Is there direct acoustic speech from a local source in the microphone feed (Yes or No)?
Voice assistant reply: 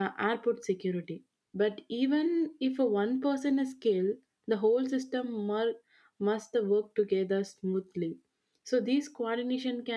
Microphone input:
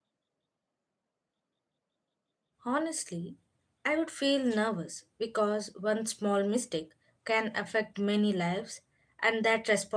Yes